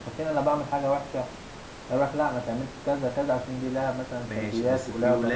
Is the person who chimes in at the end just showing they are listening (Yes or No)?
No